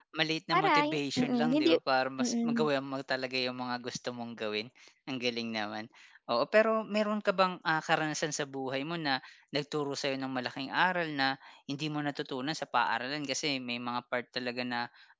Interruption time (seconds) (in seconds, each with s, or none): 0.5 s